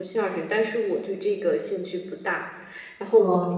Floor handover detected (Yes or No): No